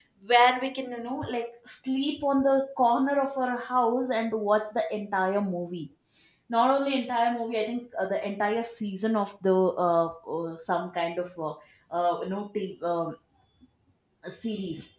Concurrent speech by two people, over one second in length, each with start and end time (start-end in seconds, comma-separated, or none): none